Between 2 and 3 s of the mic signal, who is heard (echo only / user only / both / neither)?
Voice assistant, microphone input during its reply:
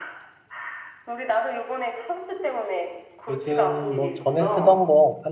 echo only